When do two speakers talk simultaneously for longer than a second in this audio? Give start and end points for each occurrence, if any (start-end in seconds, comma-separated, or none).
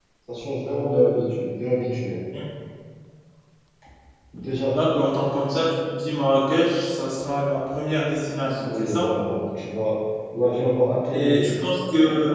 none